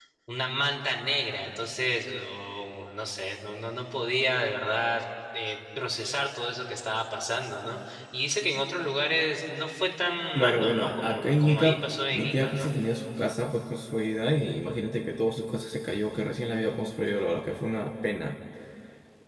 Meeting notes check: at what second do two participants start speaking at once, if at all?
10.3 s

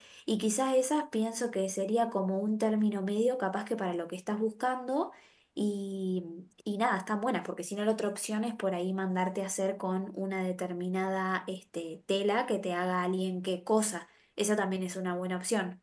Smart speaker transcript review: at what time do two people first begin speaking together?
none

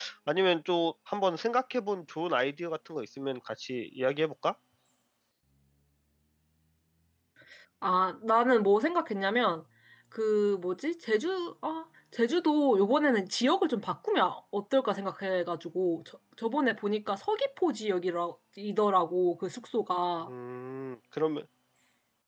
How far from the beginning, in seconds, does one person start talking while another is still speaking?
none

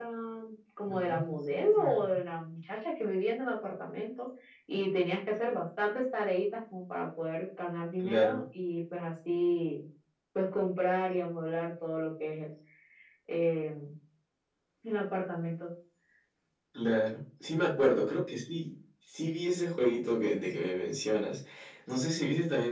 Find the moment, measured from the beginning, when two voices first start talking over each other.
0.9 s

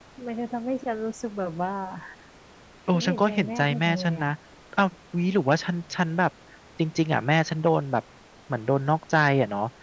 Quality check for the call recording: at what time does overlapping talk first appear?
2.9 s

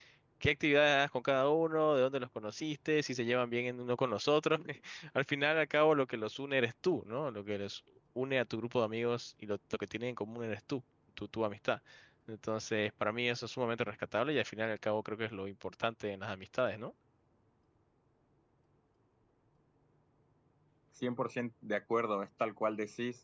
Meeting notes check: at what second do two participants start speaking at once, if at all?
none

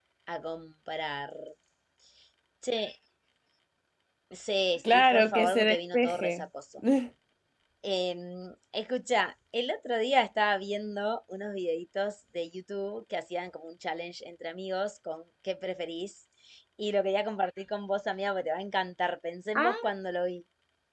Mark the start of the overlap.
4.9 s

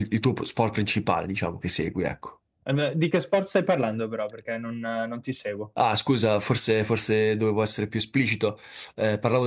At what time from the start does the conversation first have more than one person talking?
none

